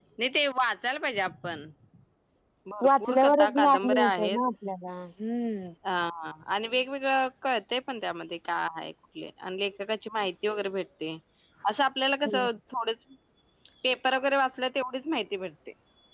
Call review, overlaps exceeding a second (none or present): present